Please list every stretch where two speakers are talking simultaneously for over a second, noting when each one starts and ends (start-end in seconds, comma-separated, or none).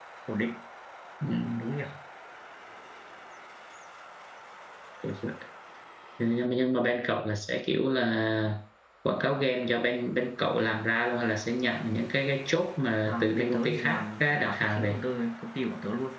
13.0-15.0